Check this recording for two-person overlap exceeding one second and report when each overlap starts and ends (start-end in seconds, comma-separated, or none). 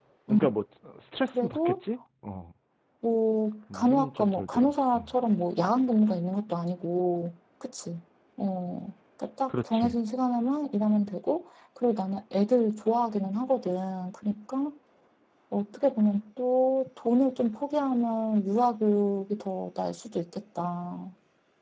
3.7-5.1